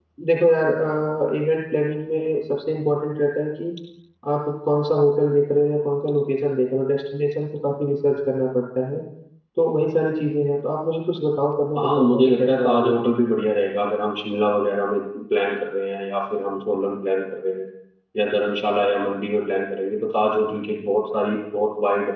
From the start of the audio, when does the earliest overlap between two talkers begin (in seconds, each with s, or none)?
11.8 s